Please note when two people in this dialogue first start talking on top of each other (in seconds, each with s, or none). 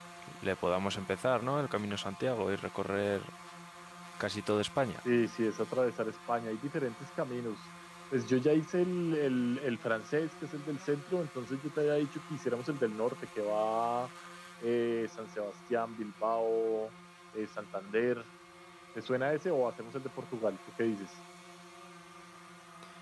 none